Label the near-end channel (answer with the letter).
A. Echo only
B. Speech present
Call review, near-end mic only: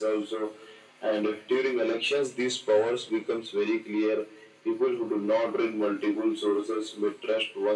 A